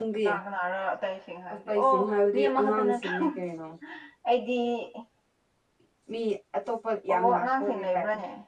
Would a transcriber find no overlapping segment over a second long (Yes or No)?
No